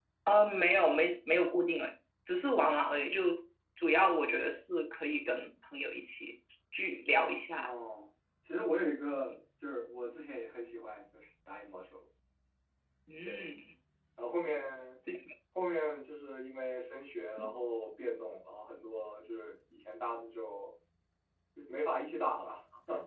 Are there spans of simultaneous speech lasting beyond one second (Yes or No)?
No